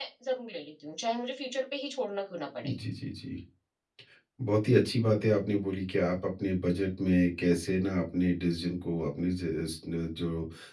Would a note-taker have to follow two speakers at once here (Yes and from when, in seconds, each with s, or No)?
No